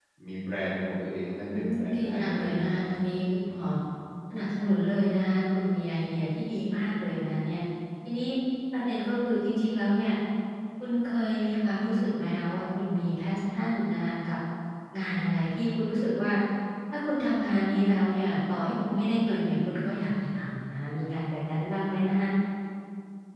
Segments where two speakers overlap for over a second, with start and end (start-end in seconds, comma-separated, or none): 1.4-2.9